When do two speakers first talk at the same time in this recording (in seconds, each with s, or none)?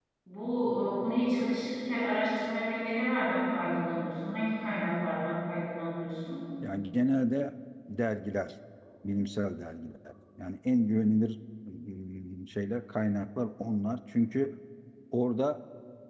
none